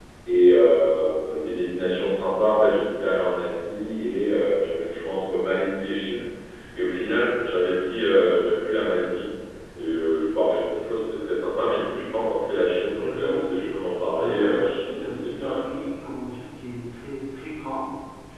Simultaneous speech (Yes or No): Yes